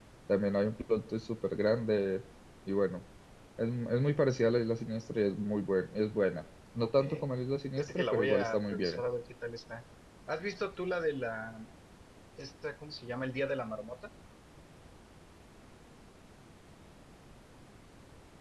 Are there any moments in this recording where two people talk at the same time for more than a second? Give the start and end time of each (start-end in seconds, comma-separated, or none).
7.8-9.0